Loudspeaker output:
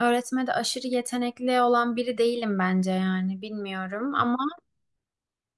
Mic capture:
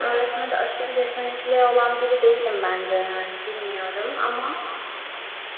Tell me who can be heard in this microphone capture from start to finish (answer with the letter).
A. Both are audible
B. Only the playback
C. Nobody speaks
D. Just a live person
B